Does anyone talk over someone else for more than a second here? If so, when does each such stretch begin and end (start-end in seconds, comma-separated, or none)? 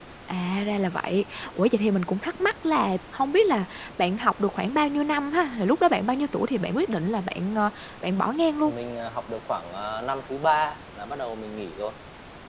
none